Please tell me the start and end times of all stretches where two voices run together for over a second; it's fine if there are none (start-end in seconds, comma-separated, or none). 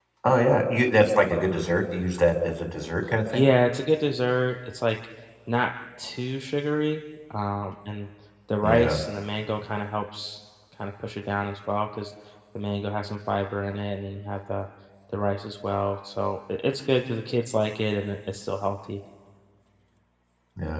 none